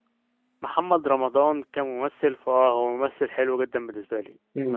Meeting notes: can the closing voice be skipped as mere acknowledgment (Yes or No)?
No